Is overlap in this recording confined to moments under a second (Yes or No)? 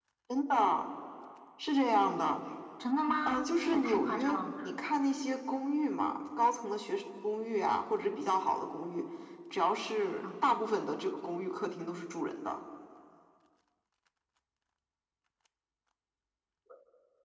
No